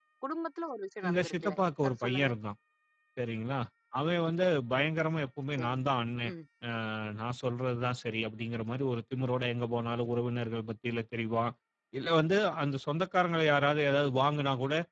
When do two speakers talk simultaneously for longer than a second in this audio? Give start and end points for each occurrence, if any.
1.0-2.3

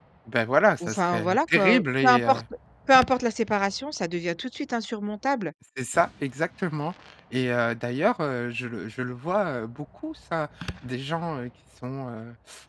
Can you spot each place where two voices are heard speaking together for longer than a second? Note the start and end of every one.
0.9-2.4

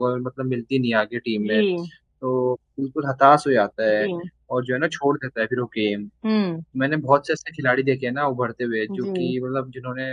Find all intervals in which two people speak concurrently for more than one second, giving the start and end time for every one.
none

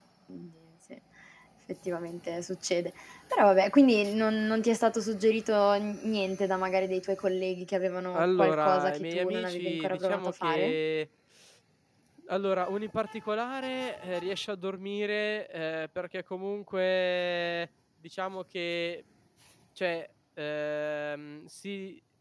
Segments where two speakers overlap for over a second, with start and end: 8.1-10.8

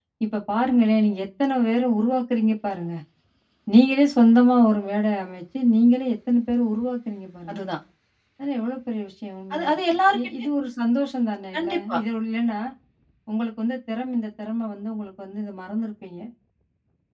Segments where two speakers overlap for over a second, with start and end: none

